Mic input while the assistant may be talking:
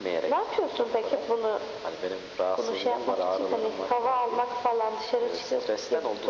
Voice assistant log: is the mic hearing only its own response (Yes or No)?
Yes